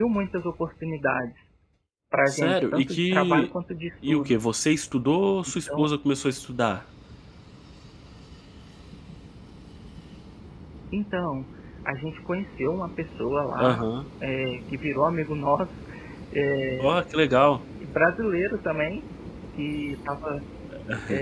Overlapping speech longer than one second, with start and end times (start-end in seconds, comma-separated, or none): 2.3-3.5